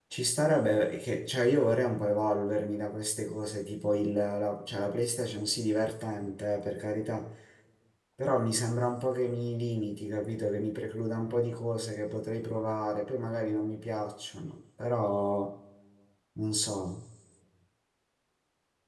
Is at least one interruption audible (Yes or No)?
No